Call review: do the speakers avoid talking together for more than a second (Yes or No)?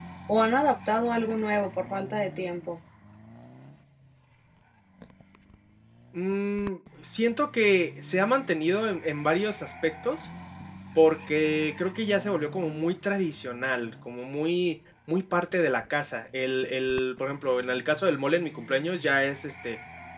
Yes